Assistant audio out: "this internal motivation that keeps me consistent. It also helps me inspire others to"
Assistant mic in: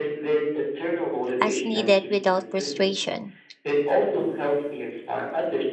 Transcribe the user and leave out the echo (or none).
as needed without frustration.